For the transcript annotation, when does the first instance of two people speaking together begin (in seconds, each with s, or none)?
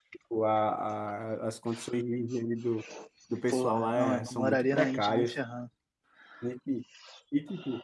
3.5 s